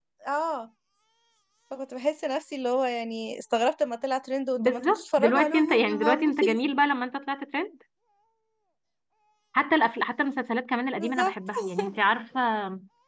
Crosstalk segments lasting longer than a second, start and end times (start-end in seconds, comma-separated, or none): 4.6-6.5